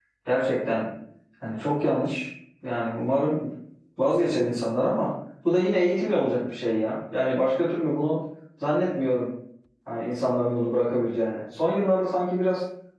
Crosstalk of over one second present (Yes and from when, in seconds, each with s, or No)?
No